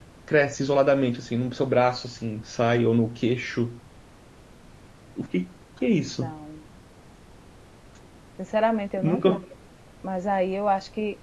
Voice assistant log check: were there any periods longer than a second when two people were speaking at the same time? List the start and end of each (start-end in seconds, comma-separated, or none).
none